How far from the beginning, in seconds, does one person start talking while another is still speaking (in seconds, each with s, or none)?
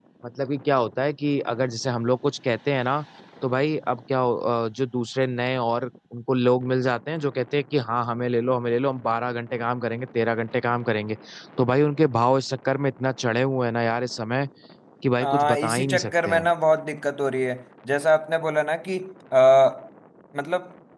15.2 s